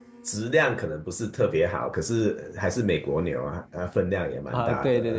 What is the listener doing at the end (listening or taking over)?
taking over